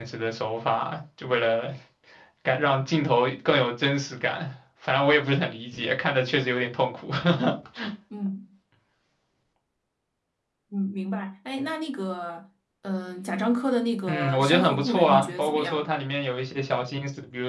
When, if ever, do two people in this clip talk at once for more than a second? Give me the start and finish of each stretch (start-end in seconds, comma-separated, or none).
14.1-15.8